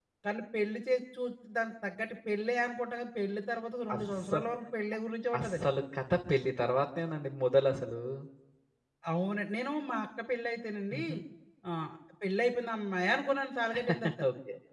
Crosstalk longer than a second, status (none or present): none